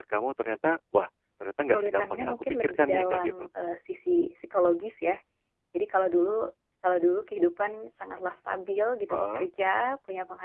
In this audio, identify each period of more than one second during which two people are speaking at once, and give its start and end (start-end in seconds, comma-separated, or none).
1.6-3.4